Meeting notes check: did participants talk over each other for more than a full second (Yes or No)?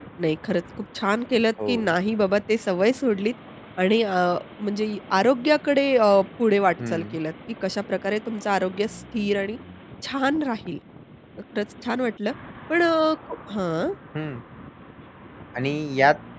No